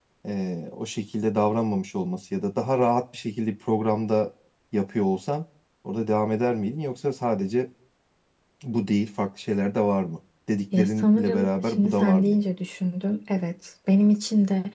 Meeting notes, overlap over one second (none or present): present